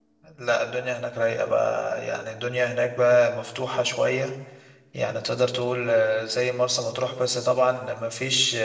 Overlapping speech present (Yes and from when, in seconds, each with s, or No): No